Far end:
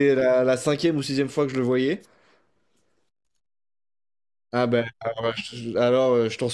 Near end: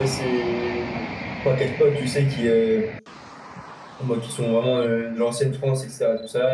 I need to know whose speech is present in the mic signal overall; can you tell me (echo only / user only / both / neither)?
user only